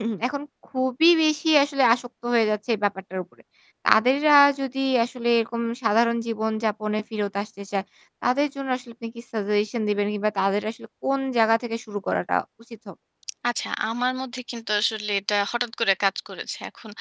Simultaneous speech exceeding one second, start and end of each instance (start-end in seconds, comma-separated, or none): none